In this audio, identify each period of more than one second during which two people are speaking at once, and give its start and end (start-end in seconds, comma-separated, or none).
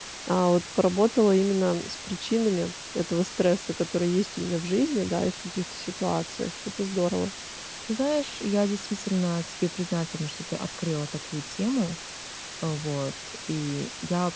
none